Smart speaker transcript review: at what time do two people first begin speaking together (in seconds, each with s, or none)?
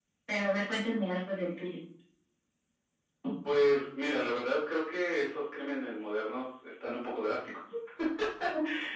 none